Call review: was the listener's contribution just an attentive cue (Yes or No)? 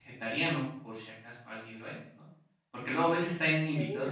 Yes